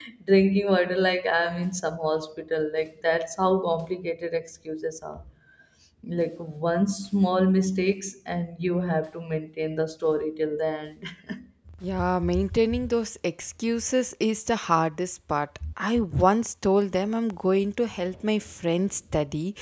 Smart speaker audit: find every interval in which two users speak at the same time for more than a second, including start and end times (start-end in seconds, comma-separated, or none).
none